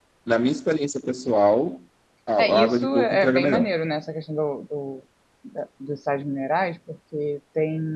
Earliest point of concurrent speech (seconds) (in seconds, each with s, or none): 2.4 s